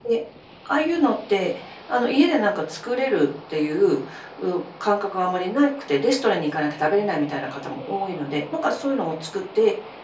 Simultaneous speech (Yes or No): No